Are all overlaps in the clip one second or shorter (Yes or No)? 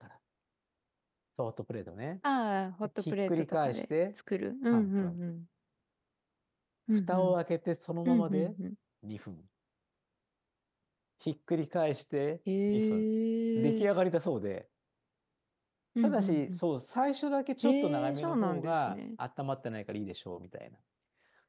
No